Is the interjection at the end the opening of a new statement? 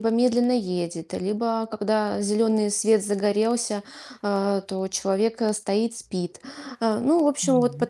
No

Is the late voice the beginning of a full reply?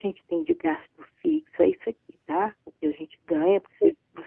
No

